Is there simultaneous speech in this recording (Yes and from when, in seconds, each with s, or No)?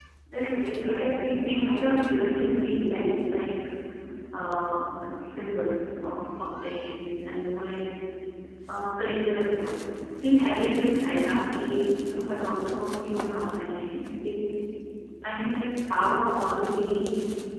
Yes, from 0.8 s